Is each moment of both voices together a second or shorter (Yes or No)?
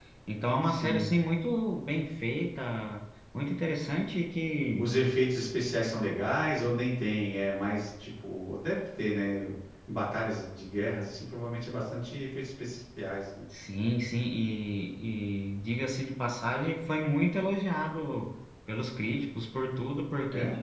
Yes